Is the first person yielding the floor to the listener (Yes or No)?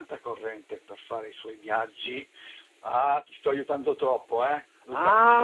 Yes